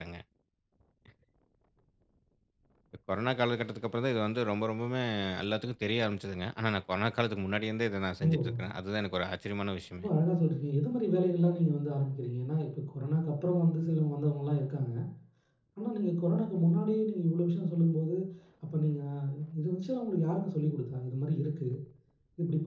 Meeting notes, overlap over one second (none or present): none